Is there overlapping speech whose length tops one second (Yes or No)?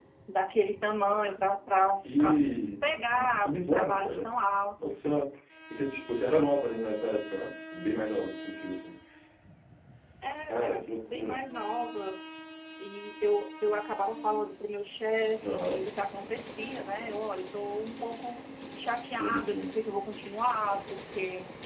Yes